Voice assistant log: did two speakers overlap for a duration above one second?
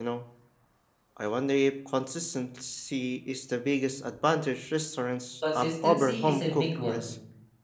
Yes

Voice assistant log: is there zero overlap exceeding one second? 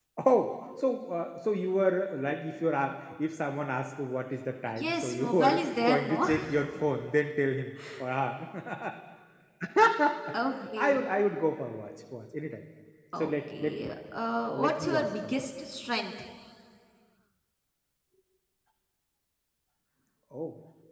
No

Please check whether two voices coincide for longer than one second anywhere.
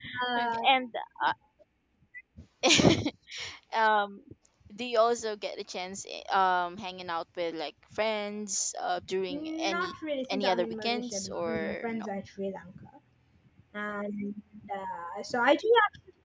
Yes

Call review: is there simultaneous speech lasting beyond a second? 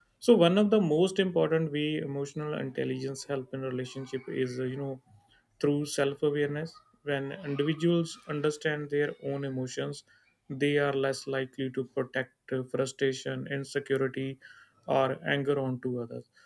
No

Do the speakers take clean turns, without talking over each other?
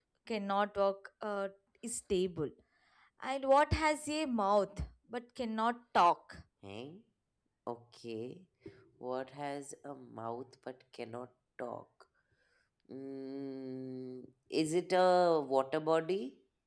Yes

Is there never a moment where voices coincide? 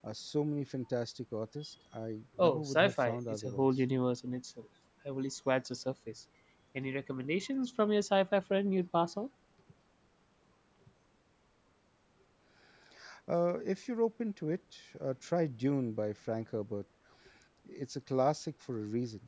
No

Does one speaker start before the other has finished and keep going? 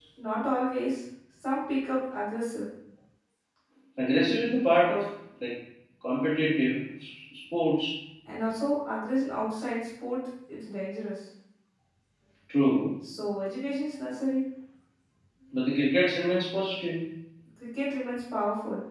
No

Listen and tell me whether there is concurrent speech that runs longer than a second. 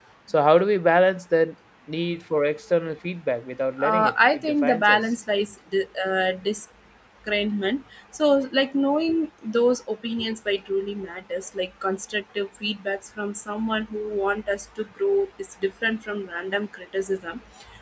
Yes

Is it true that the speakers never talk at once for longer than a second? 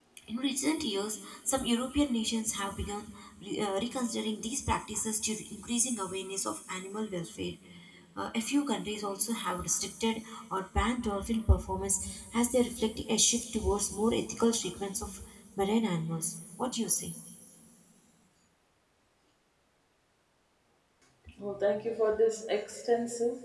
Yes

